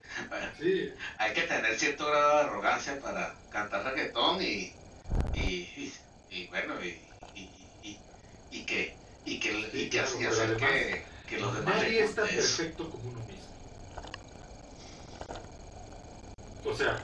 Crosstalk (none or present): present